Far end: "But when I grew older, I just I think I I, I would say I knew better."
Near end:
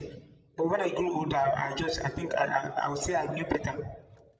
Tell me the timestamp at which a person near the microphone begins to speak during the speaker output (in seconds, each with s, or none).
none